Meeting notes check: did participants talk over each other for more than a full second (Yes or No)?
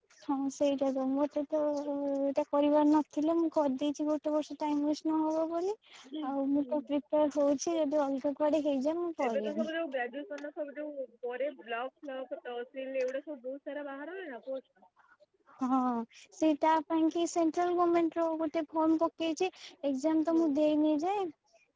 No